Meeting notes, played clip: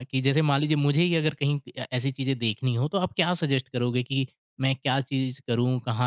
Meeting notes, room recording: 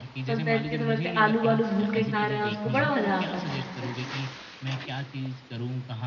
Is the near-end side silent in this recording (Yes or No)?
No